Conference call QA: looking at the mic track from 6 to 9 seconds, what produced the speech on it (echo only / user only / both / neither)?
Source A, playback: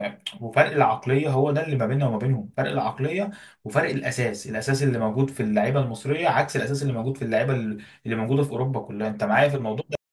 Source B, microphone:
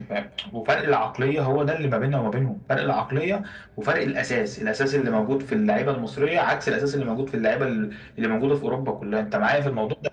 echo only